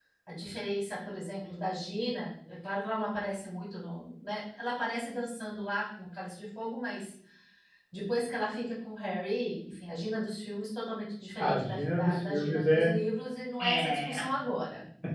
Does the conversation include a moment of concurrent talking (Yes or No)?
Yes